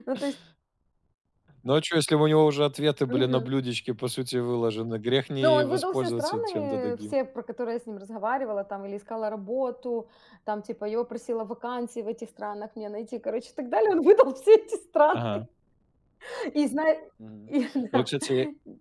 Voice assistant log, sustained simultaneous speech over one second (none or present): present